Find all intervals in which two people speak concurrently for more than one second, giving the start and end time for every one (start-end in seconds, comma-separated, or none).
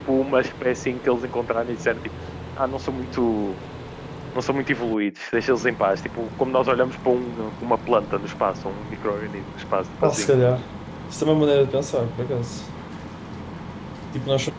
none